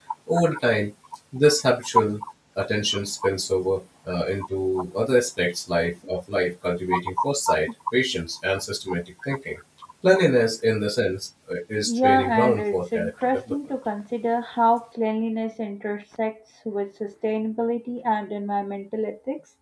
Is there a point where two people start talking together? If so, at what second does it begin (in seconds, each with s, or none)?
11.8 s